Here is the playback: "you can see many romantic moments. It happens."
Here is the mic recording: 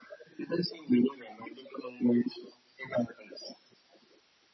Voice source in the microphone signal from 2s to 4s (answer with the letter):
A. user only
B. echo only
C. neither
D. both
B